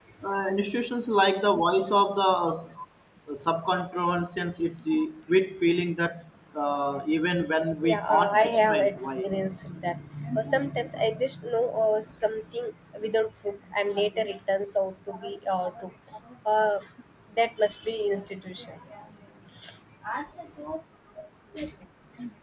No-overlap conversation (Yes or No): No